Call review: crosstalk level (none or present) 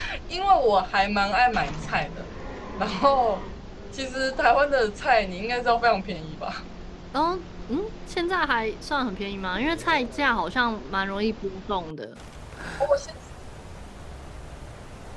none